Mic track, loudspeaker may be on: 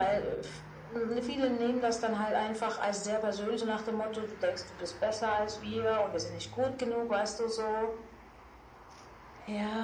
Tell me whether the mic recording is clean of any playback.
No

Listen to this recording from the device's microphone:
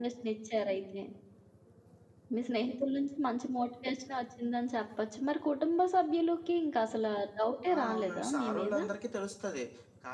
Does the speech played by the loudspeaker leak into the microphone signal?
Yes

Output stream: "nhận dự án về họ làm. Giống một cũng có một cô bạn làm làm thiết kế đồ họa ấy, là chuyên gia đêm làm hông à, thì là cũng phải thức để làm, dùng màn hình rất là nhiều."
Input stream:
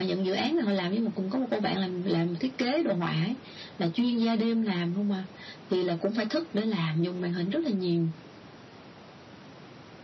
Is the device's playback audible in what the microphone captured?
Yes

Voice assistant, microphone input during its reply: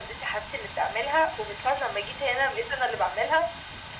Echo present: Yes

